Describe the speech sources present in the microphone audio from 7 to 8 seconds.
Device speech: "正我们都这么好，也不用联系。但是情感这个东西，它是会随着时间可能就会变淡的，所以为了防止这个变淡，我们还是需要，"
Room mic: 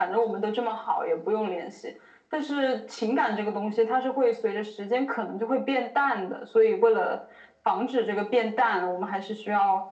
echo only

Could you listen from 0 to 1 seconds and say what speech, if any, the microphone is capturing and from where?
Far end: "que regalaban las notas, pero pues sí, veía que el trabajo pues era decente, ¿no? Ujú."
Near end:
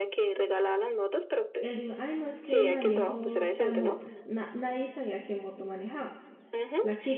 echo only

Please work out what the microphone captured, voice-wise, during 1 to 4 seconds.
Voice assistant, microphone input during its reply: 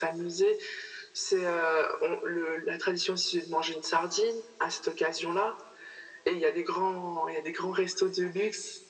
echo only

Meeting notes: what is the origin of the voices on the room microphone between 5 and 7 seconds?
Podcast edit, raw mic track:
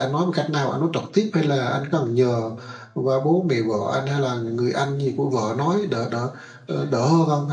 user only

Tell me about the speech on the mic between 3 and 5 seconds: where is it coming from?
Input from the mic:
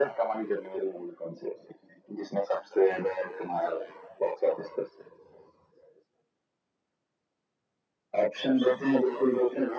echo only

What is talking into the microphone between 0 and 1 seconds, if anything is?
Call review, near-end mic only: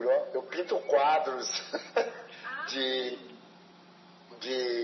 echo only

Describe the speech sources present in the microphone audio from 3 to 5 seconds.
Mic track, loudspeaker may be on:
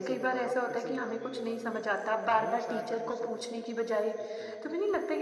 both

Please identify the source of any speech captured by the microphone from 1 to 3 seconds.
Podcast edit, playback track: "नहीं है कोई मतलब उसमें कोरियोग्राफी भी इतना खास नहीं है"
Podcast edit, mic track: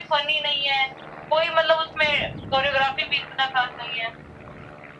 echo only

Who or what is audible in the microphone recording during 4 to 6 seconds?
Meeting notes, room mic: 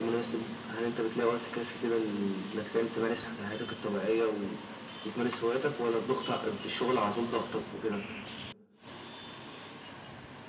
echo only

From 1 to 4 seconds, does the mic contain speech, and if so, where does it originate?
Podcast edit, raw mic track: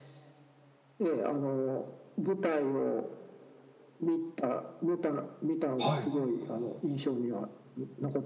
echo only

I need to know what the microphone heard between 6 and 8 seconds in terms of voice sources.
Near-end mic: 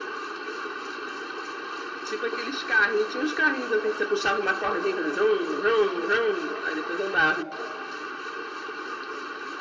echo only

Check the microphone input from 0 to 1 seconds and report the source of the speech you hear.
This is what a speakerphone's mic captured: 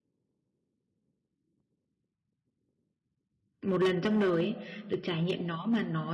neither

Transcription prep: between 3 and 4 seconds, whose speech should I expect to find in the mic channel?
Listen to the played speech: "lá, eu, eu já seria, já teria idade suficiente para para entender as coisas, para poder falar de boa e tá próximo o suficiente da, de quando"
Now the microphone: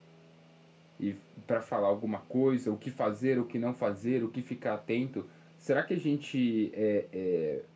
user only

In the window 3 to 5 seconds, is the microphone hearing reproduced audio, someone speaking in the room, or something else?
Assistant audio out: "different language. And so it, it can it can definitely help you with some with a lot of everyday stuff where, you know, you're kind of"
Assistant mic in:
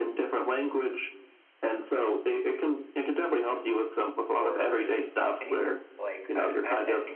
both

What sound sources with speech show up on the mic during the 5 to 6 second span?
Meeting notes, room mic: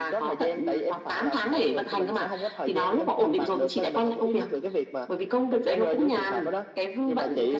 echo only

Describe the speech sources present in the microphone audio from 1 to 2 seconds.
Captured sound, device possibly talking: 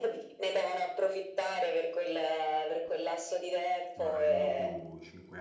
echo only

